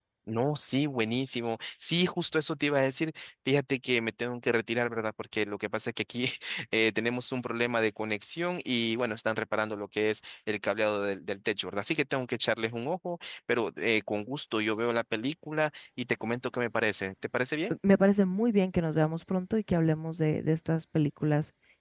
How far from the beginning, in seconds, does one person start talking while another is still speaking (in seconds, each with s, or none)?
none